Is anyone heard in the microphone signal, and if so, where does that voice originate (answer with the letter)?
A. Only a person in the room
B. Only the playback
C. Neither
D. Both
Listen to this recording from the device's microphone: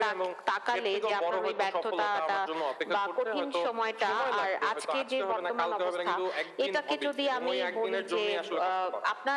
B